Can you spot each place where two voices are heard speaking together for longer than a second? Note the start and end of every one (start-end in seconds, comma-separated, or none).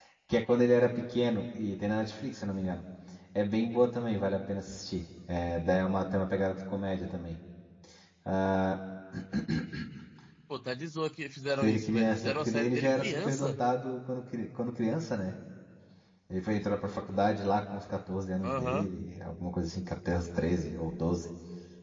11.6-13.6